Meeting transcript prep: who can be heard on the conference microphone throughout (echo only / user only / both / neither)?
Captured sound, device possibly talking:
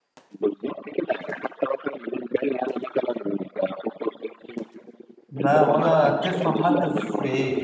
both